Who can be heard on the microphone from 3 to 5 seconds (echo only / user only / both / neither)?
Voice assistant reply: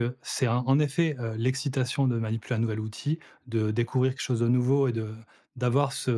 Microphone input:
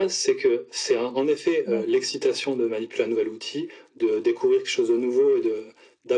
echo only